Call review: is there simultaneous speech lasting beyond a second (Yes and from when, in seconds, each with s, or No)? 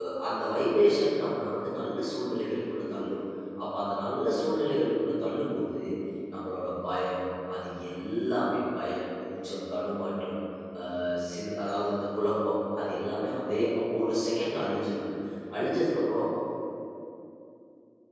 No